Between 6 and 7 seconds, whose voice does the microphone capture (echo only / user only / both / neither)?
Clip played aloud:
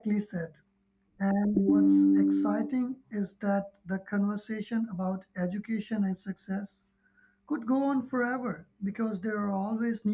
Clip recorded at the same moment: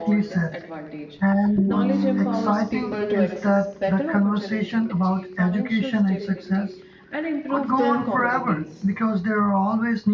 both